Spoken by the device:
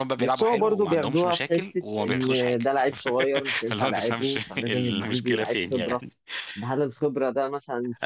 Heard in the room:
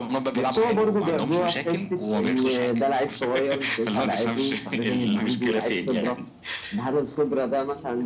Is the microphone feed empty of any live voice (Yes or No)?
Yes